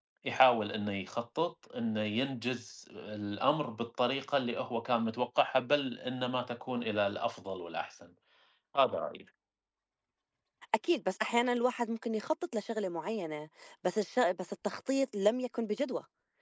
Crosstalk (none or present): none